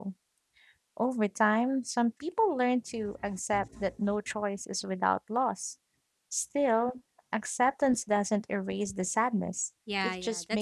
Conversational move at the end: taking over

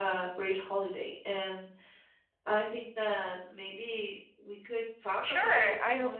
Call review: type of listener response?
taking over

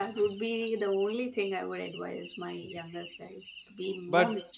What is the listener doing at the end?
listening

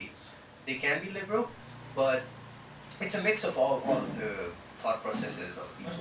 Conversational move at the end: taking over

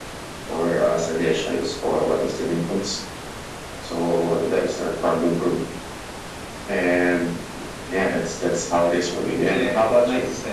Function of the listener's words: taking over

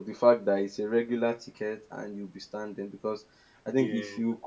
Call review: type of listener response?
listening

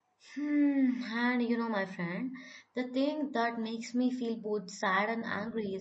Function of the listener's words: listening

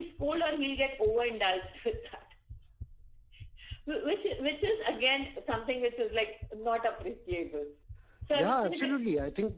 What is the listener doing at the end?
taking over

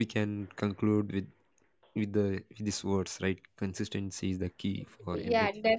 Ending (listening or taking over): taking over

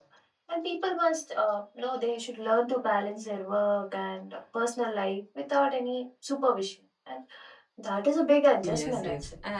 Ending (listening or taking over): taking over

